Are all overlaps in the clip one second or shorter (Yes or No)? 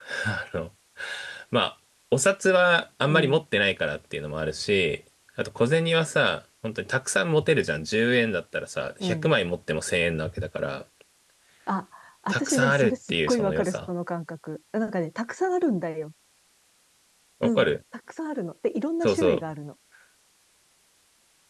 No